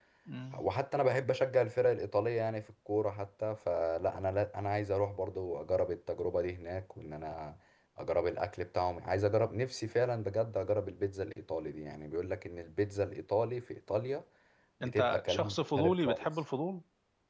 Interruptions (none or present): present